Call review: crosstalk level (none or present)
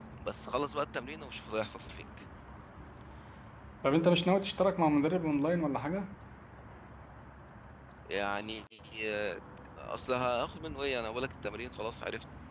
none